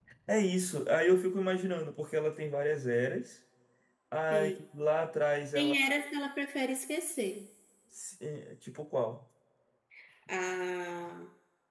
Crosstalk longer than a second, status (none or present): none